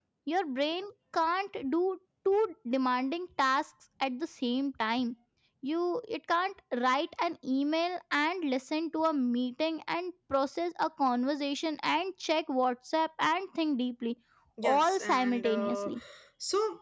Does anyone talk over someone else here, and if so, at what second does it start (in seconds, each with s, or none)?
14.6 s